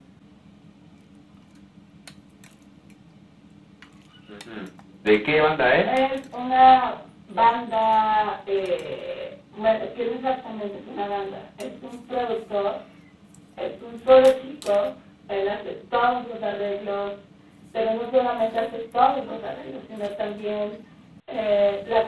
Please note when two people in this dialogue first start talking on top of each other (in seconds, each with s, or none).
none